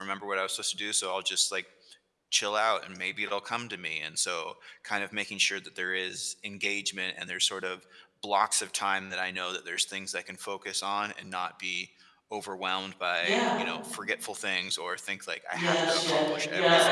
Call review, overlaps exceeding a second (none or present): present